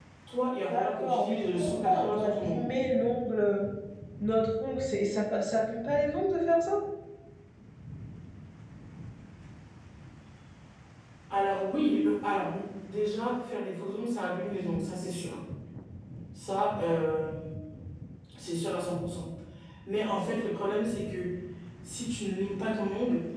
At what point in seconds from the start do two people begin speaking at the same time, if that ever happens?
1 s

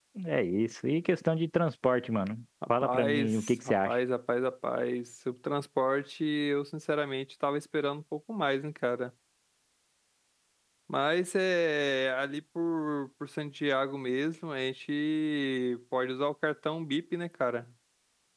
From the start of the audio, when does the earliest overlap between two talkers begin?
3 s

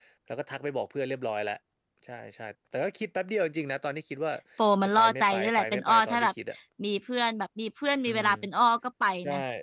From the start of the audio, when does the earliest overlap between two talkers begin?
5 s

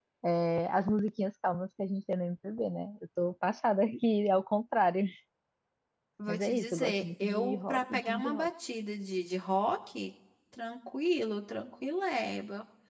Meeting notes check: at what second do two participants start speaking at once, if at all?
6 s

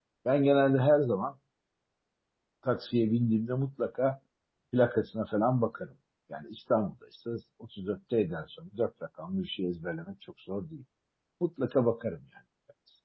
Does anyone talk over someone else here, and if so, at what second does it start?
none

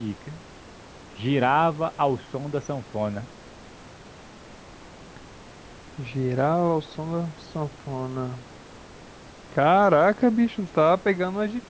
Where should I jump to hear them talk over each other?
none

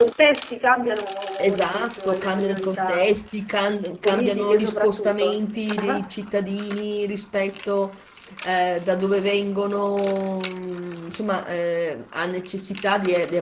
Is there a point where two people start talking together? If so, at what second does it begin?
1 s

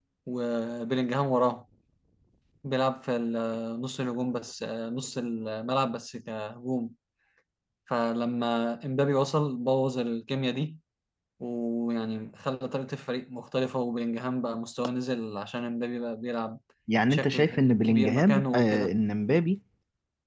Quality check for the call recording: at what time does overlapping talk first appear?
17 s

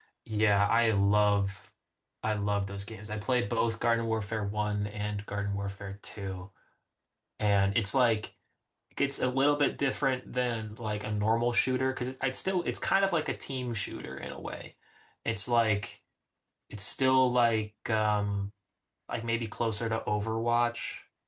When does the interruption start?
none

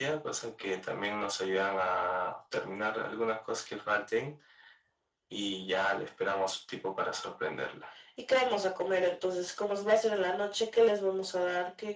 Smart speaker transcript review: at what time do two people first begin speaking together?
none

